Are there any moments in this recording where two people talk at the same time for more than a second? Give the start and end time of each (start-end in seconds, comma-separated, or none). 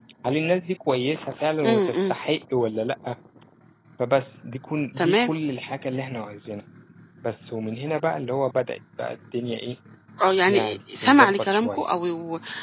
10.5-11.8